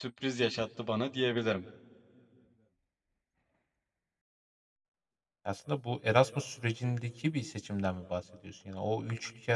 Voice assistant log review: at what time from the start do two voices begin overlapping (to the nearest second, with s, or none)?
none